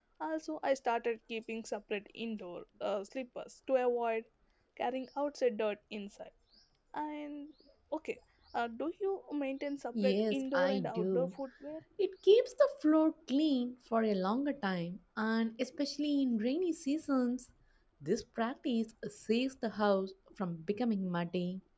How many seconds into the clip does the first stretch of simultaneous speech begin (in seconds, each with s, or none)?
9.9 s